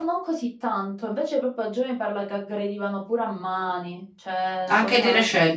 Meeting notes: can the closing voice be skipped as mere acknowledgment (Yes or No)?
No